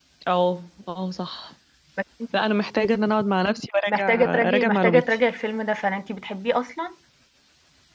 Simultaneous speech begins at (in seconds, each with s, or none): 3.9 s